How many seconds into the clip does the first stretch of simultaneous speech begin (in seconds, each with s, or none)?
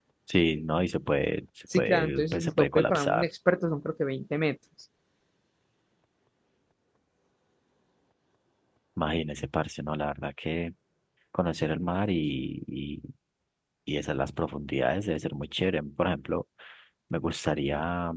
1.7 s